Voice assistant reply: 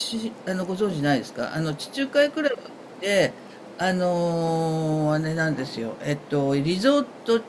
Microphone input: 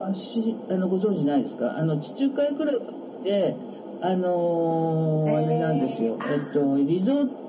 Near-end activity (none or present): present